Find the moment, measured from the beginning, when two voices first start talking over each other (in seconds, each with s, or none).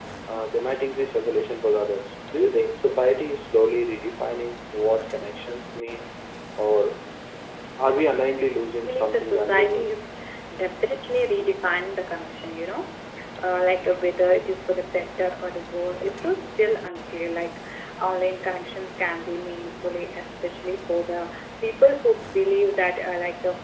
8.6 s